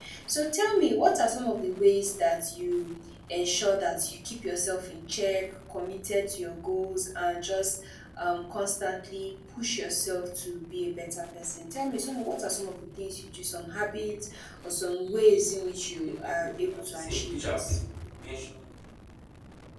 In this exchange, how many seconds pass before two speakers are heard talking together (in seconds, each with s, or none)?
16.0 s